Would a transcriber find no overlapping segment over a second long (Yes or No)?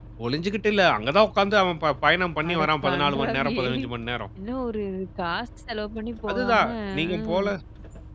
No